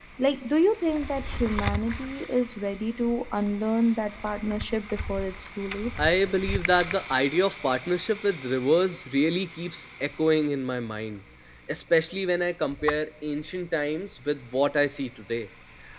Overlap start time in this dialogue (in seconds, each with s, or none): none